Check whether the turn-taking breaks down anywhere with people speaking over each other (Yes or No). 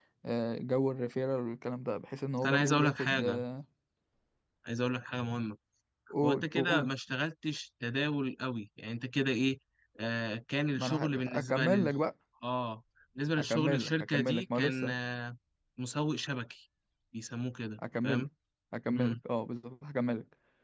Yes